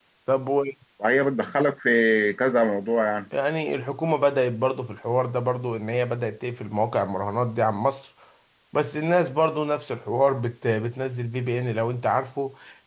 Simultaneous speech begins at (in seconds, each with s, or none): none